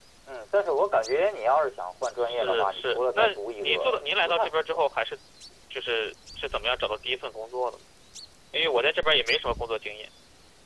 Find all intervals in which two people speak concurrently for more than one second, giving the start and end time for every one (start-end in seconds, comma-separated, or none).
2.2-4.9